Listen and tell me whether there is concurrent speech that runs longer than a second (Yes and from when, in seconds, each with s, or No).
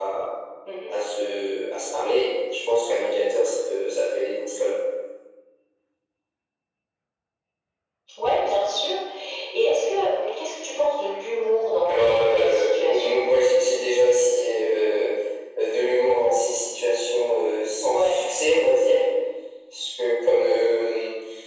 Yes, from 11.8 s